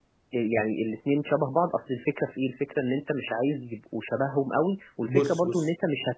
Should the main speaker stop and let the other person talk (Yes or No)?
No